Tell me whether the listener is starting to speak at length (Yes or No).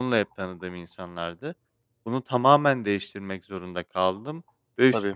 No